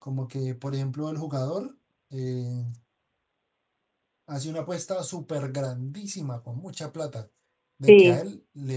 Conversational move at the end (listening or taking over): listening